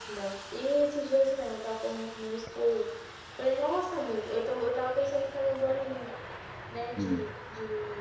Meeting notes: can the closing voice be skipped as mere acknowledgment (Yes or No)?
Yes